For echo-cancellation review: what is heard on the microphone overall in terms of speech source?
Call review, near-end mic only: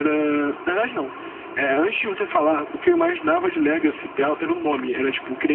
echo only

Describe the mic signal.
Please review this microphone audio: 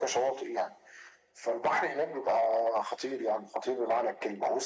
echo only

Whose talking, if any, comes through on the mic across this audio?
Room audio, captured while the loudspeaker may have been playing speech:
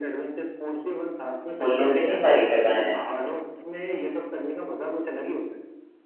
both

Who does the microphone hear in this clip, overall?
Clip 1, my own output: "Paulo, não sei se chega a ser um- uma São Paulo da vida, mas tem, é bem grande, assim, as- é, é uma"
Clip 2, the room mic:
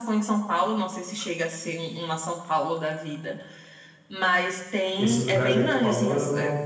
both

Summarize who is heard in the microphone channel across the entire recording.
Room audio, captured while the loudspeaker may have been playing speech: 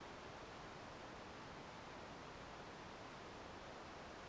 neither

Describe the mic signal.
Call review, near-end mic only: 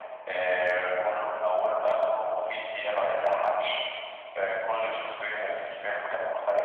echo only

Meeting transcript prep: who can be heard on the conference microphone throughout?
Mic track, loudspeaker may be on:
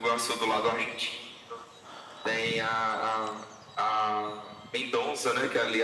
echo only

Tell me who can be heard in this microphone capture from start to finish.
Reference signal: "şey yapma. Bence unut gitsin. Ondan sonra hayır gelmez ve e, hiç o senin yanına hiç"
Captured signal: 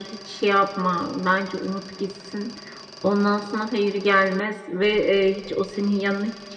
echo only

